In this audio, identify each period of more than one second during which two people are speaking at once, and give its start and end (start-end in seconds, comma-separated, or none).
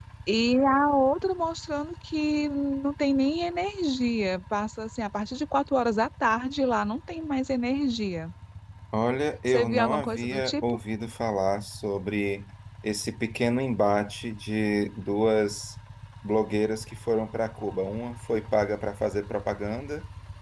9.5-10.8